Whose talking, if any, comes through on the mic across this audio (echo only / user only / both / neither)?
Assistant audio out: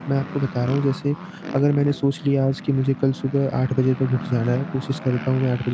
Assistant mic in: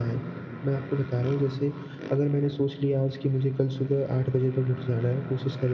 echo only